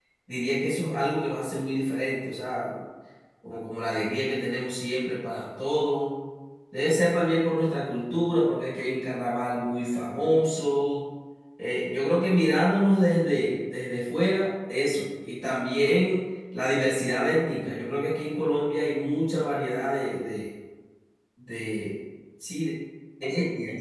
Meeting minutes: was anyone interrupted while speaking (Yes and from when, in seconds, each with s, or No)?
No